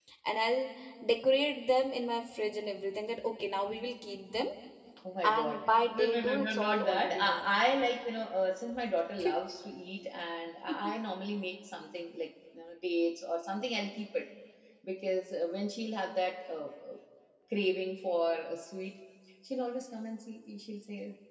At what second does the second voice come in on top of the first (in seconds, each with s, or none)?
5.2 s